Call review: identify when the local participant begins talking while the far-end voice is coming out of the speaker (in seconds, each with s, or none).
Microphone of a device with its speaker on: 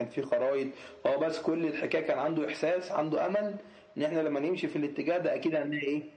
none